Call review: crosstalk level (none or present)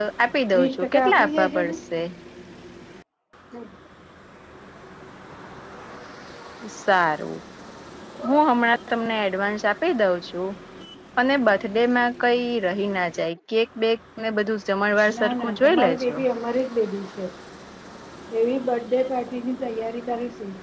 present